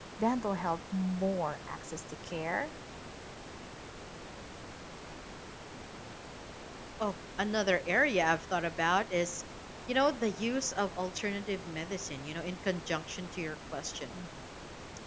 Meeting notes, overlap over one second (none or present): none